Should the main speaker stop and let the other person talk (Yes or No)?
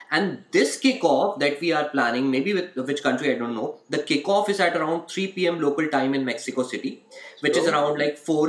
No